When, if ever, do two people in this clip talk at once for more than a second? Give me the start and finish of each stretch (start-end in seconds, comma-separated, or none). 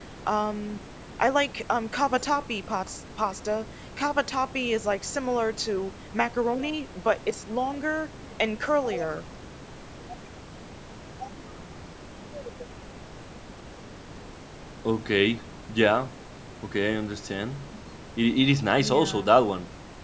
none